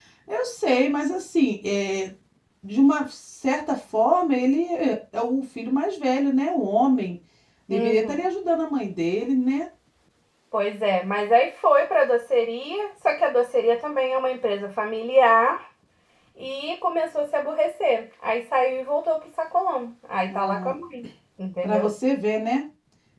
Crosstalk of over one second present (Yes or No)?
No